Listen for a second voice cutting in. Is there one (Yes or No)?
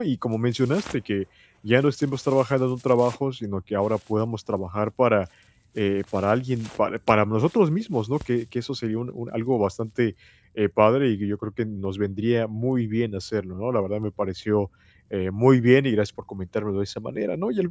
No